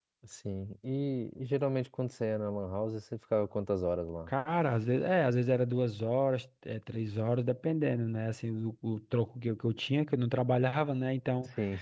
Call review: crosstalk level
none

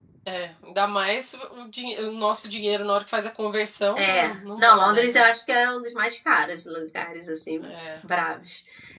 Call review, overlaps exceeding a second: present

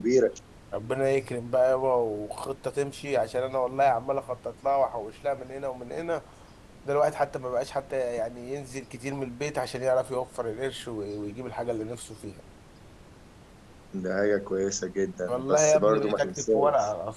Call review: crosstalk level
present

